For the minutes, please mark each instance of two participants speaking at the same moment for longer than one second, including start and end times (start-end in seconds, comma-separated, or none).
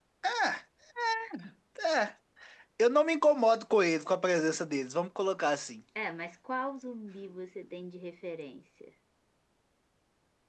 none